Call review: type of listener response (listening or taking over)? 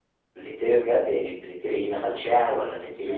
taking over